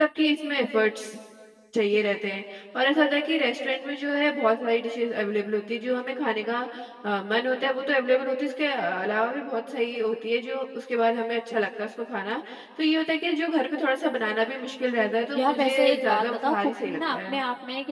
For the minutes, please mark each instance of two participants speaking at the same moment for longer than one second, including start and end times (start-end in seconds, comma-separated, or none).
15.3-17.4